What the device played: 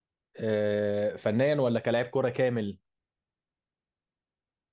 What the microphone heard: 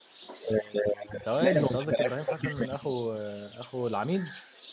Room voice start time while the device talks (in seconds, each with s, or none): 1.2 s